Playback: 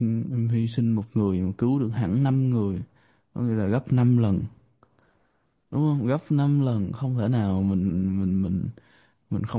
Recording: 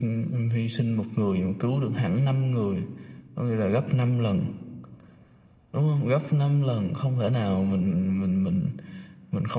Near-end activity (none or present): none